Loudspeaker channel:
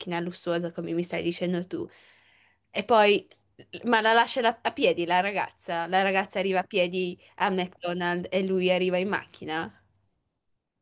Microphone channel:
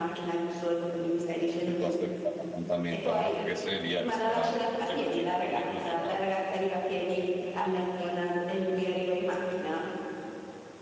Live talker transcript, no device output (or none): piuttosto che a un appuntamento, no? Perché sei lì al ristorante, mangi così, ti poni così, bla bla.